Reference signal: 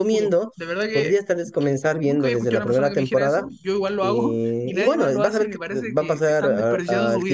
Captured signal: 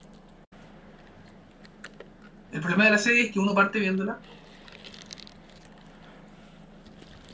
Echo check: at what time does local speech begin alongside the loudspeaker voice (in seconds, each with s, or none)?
2.5 s